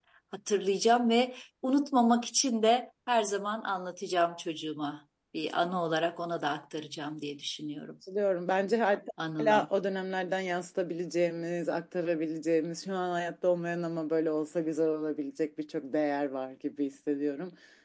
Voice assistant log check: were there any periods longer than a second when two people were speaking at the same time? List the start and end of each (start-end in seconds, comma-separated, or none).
none